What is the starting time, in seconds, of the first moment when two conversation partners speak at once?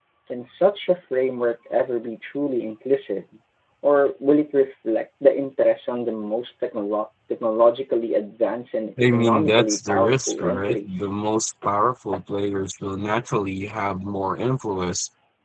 9.0 s

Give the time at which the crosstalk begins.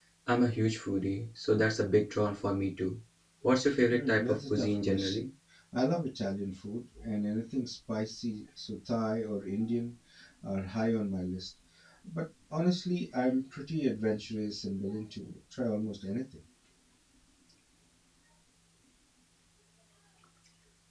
3.9 s

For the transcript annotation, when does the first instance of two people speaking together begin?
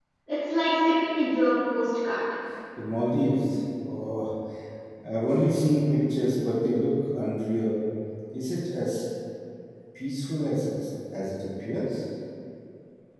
none

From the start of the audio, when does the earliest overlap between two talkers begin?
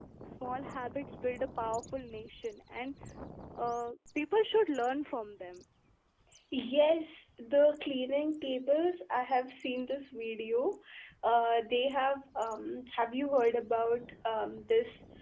none

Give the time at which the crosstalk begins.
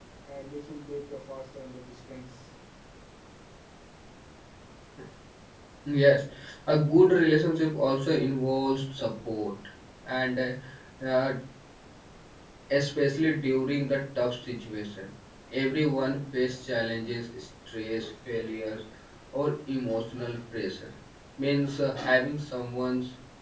none

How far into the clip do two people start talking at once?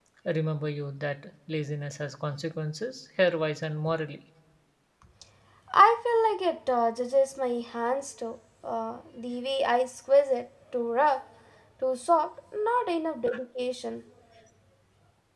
none

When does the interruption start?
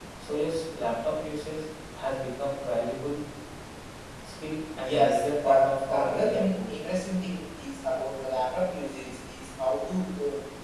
4.8 s

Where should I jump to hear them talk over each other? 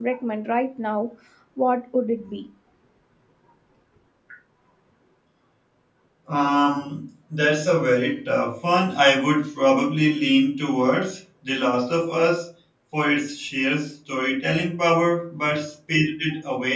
none

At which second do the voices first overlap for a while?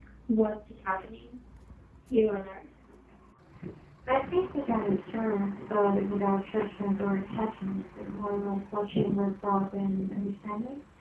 none

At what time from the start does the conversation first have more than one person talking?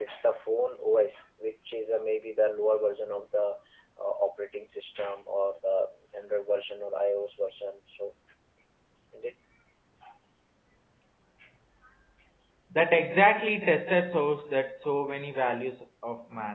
none

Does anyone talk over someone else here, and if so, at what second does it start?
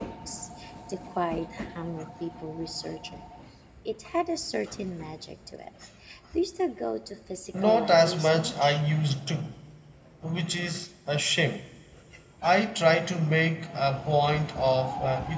7.5 s

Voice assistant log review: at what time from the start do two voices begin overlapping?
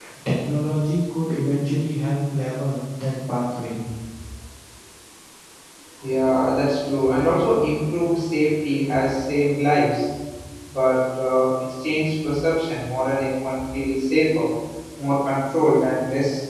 none

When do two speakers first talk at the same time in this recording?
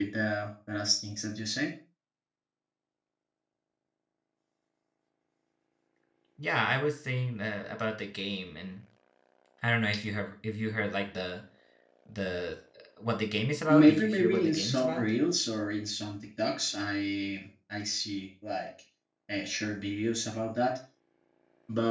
13.7 s

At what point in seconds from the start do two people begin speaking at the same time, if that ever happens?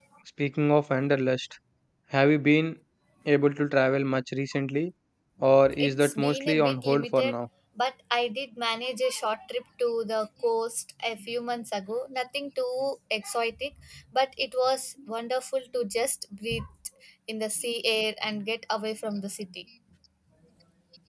5.8 s

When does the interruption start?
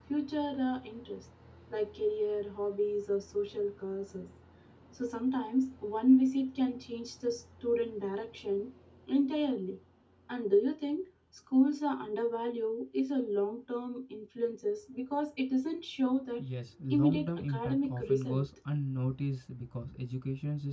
16.9 s

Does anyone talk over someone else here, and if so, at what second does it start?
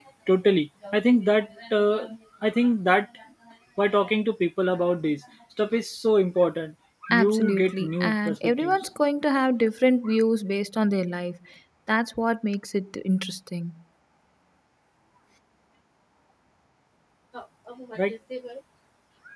7.1 s

